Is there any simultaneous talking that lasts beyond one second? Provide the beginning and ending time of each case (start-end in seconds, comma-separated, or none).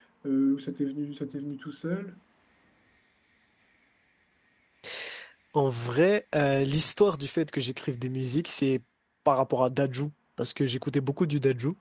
none